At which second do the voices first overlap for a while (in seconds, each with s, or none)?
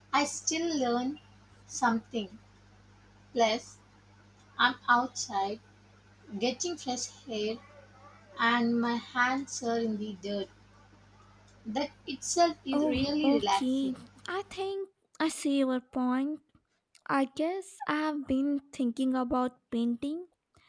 12.7 s